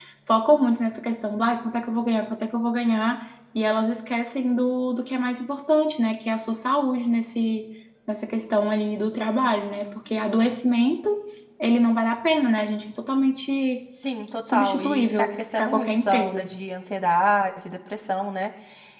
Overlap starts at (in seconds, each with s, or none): 14.5 s